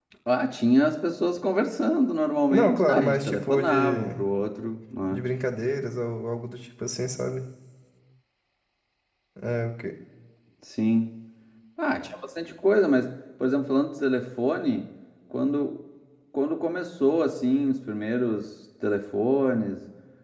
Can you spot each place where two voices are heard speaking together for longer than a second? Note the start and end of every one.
2.5-4.1

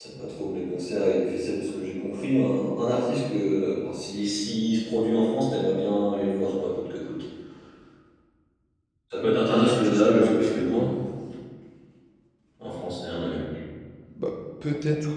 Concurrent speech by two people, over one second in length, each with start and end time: 9.5-10.9

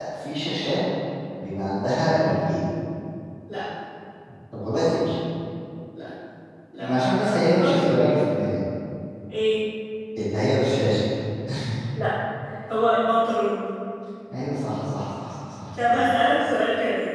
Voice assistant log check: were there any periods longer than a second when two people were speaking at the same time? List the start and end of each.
6.8-8.2

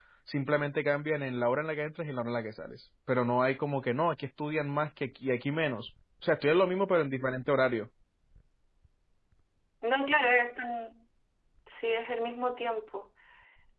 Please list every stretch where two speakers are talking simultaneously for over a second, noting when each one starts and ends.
none

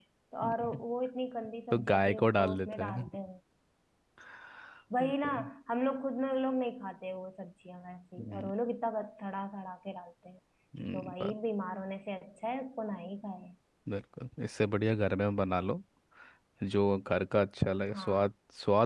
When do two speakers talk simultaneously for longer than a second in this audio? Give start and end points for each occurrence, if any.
1.7-3.0

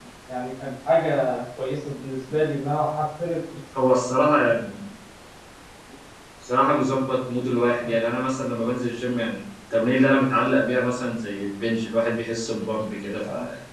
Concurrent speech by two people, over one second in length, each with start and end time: none

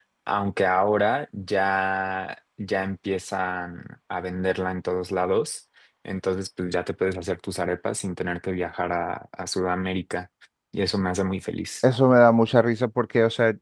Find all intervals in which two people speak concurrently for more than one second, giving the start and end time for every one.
none

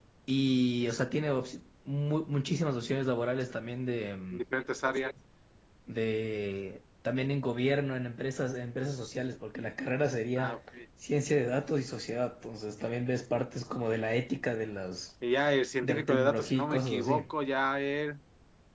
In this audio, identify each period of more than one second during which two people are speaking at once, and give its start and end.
15.8-17.3

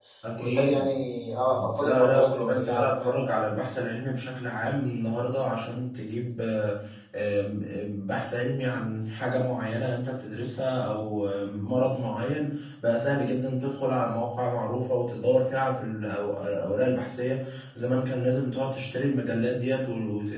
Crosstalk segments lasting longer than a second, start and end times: 1.8-3.2

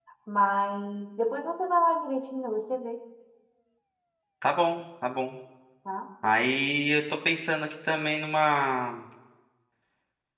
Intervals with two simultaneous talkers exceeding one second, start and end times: none

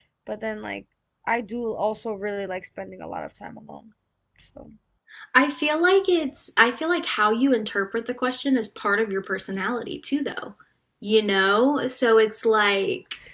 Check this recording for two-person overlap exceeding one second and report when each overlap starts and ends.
none

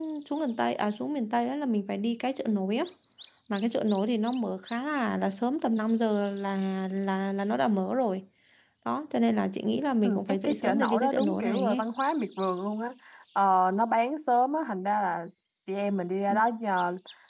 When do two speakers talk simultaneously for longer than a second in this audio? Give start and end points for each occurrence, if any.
10.0-11.8

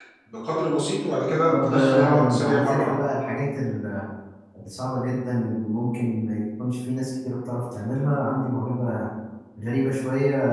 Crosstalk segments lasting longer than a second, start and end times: 1.5-2.9

